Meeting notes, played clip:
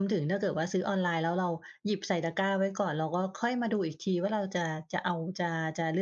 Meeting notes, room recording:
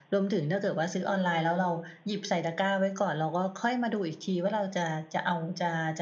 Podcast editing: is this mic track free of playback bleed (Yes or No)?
No